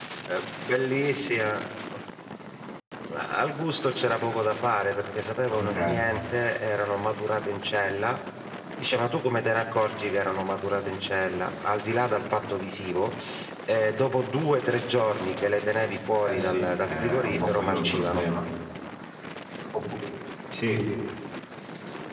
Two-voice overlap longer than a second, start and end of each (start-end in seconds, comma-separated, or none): 16.2-18.2